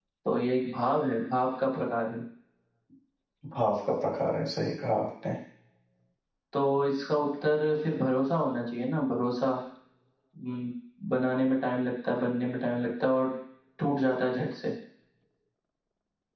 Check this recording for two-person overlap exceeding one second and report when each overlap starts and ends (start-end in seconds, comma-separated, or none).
none